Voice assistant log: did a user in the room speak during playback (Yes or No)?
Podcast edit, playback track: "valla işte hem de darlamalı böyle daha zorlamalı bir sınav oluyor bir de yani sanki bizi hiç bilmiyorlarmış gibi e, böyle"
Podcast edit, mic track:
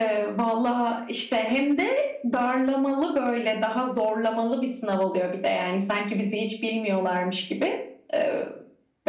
No